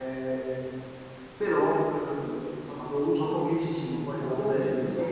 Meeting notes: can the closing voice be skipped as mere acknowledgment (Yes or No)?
No